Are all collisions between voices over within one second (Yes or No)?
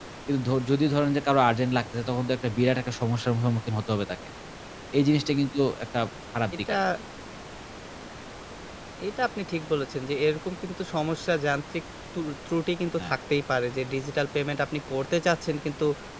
Yes